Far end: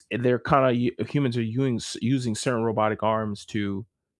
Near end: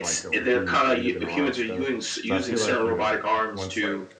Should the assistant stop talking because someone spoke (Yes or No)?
Yes